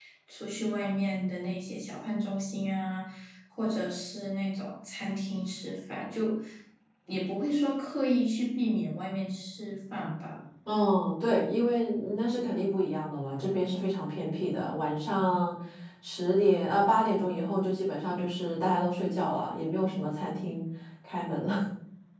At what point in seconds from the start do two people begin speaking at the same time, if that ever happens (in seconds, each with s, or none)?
none